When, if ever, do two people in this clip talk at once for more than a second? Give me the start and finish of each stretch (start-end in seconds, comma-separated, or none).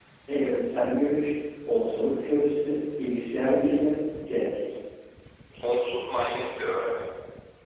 none